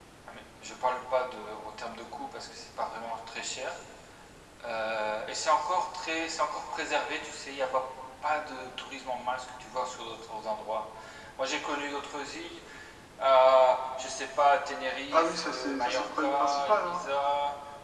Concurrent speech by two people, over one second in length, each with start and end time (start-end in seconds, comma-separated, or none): 15.1-17.1